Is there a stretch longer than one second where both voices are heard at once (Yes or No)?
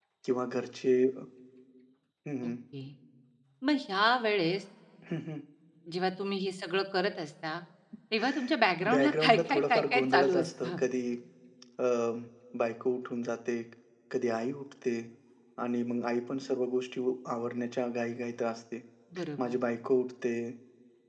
Yes